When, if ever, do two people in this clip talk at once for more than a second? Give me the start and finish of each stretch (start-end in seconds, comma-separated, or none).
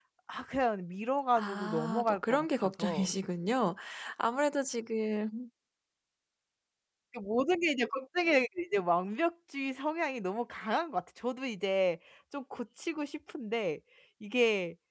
1.4-3.1